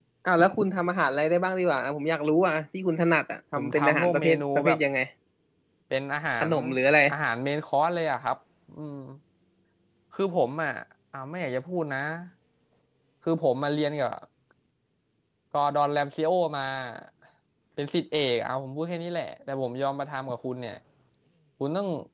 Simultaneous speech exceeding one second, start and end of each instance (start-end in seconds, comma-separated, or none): 3.6-4.8